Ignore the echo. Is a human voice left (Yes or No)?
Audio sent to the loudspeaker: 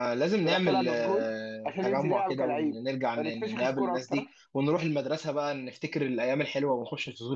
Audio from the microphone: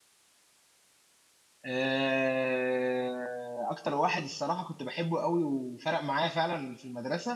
Yes